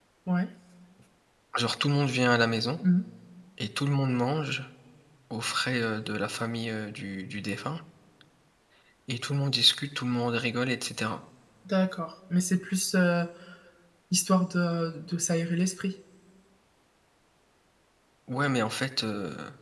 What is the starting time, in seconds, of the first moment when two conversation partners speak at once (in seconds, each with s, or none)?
none